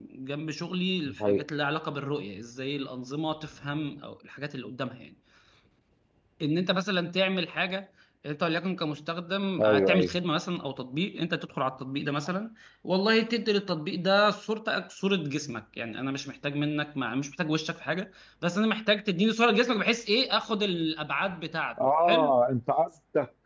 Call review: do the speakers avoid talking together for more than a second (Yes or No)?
Yes